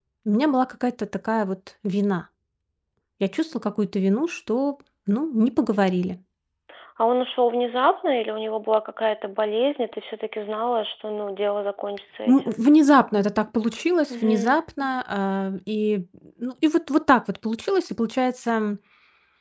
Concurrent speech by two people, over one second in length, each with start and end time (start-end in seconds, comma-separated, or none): none